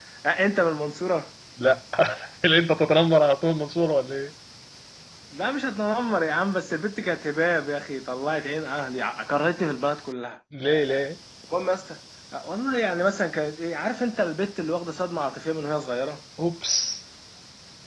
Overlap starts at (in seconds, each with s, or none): none